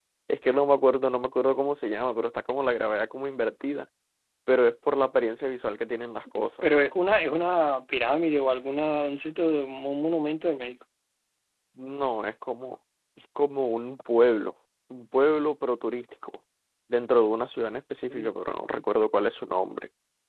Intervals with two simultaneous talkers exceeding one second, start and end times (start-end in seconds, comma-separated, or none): none